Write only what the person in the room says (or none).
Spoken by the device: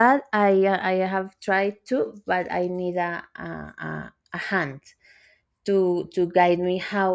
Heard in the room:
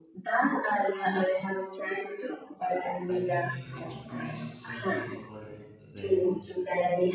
I think it's pretty sensible them.